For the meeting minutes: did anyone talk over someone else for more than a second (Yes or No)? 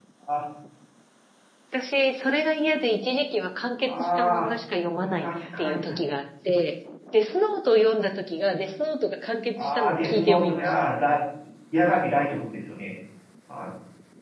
Yes